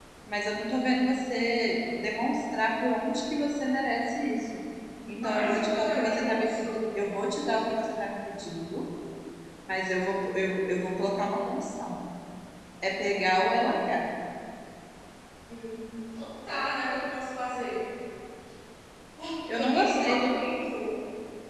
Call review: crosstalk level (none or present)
present